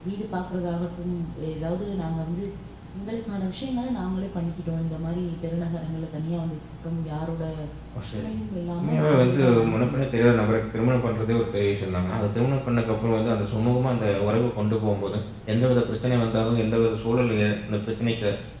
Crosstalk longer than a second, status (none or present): present